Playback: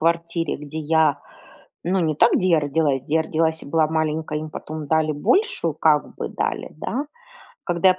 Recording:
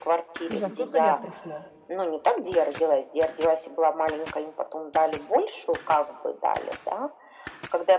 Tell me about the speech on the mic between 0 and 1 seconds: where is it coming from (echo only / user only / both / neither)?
both